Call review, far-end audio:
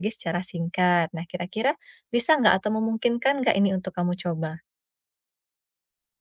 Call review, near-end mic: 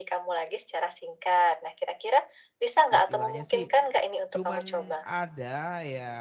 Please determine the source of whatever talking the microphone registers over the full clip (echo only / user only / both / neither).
both